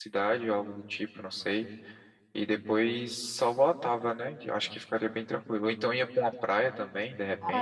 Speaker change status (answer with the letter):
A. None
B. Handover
B